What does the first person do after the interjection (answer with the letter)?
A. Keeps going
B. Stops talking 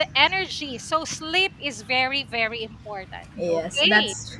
B